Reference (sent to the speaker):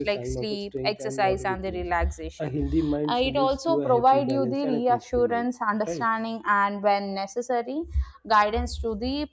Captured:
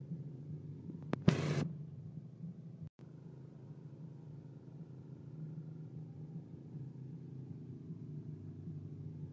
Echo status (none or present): none